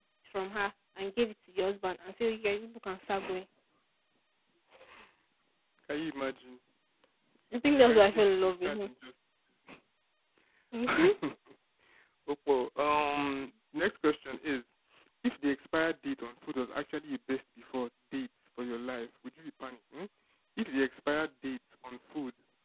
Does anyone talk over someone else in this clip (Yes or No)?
Yes